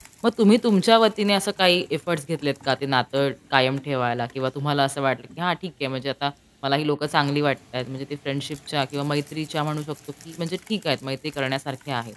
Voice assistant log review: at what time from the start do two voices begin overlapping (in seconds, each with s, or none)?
none